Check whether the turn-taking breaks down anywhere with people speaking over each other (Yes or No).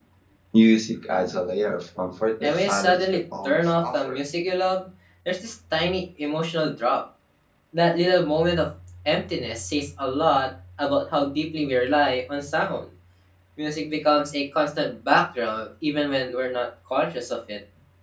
Yes